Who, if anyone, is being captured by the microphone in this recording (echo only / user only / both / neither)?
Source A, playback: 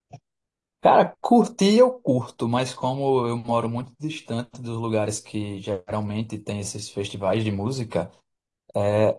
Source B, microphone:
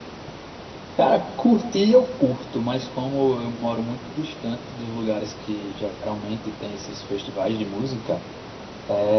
echo only